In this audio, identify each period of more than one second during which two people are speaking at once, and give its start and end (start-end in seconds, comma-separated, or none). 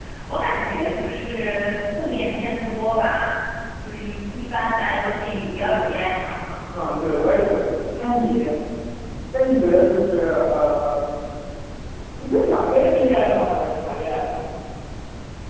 none